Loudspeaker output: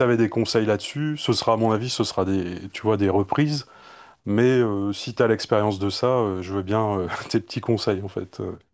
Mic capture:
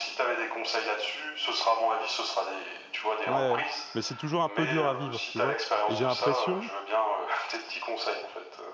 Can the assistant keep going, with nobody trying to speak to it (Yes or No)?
No